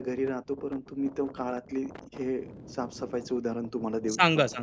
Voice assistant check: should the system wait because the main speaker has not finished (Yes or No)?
No